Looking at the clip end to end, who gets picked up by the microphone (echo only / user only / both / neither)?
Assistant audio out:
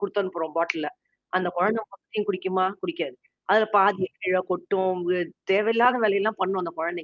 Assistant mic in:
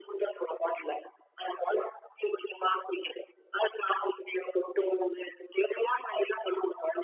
echo only